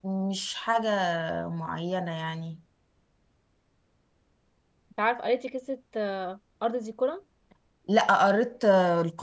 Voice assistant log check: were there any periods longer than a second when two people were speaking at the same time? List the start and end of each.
none

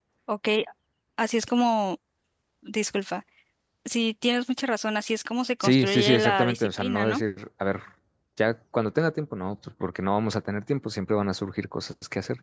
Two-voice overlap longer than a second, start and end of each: 5.6-7.2

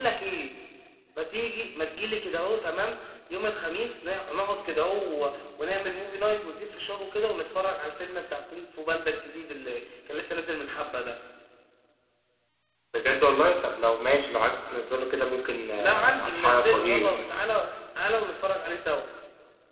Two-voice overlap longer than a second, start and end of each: 15.8-17.1

